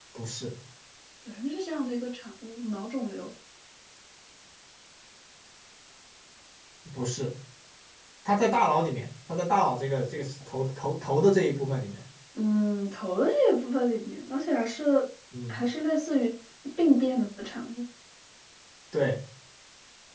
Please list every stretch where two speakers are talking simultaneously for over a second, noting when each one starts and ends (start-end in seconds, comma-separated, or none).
none